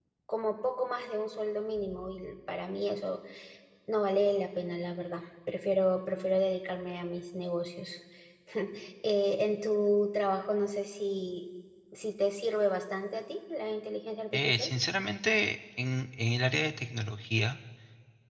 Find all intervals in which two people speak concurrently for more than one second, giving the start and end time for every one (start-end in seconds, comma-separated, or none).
none